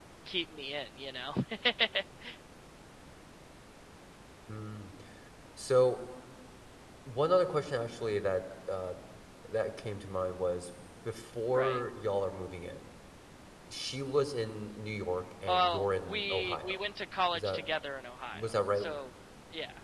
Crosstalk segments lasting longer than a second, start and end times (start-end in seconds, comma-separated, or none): 15.5-16.8